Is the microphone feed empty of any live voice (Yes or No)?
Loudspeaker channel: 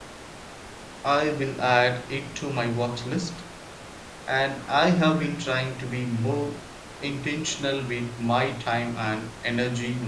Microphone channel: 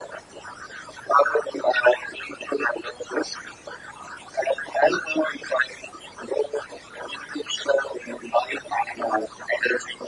Yes